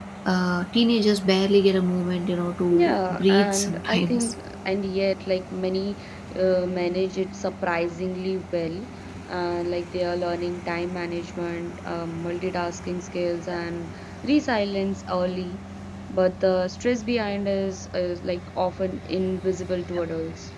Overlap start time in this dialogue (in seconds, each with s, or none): 2.7 s